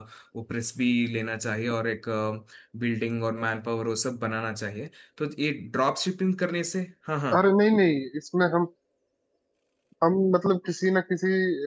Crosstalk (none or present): none